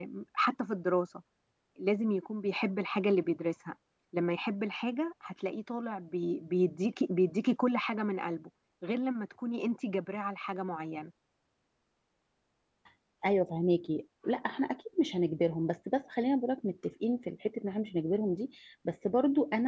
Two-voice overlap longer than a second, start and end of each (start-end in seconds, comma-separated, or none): none